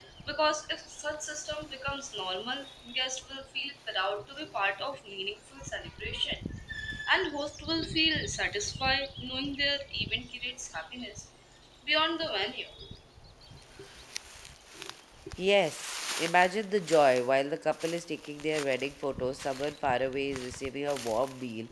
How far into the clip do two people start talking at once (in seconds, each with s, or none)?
none